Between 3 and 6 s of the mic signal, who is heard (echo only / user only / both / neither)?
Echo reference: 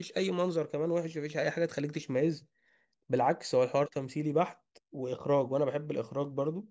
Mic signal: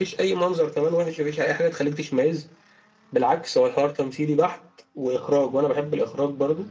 echo only